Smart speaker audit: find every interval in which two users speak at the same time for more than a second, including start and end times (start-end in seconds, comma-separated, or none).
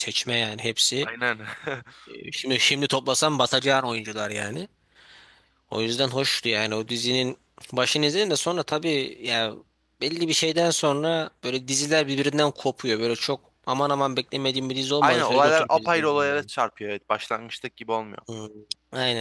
15.0-16.5